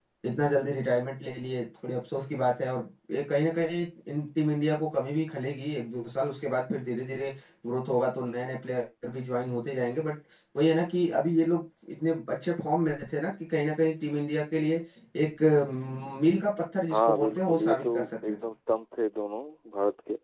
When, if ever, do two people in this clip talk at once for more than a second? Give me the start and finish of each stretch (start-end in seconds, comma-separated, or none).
16.9-18.4